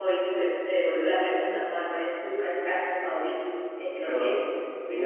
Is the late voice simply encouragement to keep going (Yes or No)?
No